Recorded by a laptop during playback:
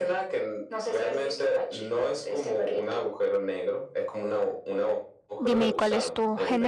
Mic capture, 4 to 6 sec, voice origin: both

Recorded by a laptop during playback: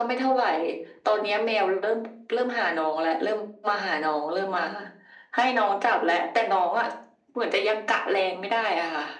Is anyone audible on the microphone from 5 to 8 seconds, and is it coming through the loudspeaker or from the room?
echo only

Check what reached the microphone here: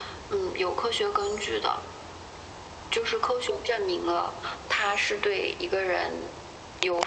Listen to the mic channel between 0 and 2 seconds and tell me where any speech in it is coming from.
echo only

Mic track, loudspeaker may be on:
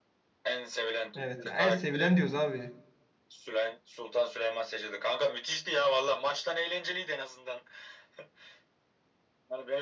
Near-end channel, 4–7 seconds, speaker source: echo only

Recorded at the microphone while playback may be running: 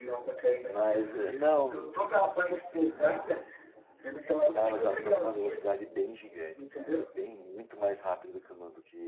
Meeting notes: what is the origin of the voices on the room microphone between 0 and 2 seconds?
both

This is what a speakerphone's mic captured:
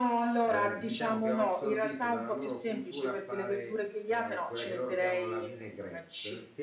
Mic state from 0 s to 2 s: both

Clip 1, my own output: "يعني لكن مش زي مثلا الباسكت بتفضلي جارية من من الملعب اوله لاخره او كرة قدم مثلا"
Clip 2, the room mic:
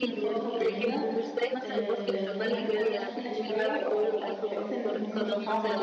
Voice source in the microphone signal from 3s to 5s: both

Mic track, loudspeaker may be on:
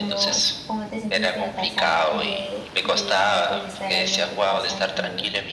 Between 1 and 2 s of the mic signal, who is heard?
both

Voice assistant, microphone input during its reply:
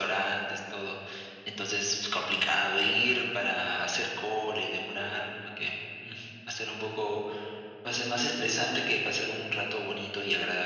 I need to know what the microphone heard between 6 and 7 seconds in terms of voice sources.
echo only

